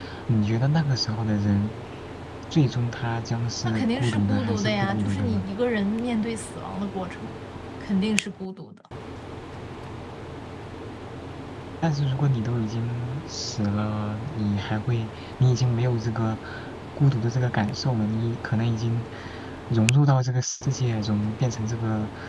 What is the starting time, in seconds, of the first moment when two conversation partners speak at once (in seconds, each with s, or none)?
3.6 s